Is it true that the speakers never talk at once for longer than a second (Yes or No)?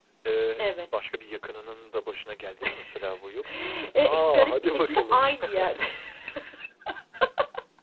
No